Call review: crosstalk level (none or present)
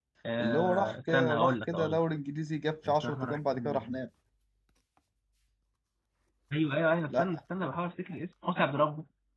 present